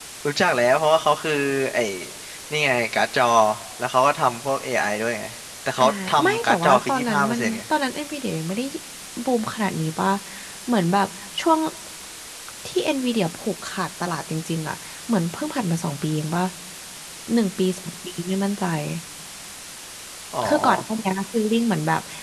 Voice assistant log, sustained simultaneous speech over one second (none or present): present